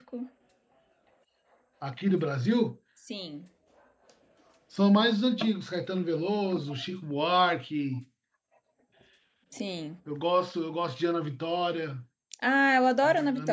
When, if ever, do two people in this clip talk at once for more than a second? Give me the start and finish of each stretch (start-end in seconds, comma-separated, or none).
none